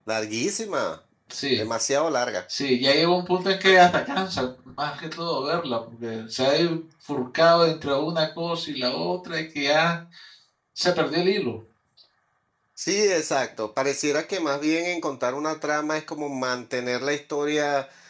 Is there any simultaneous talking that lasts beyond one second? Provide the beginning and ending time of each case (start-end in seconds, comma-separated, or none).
none